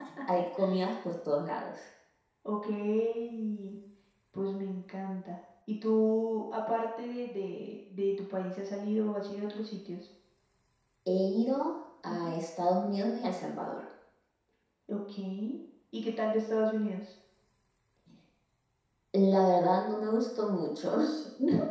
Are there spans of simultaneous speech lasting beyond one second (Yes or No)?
No